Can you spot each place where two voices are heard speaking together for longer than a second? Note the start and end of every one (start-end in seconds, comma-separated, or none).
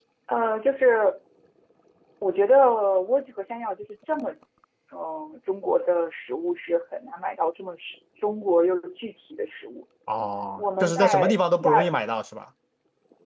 10.6-11.8